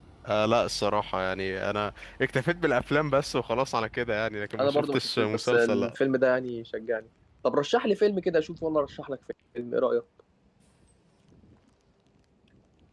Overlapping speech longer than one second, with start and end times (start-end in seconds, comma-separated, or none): 4.6-6.0